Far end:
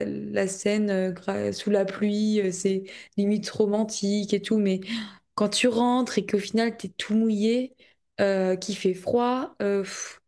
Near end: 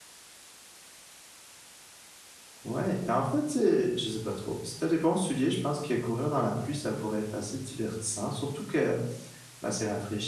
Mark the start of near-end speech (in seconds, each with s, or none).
2.6 s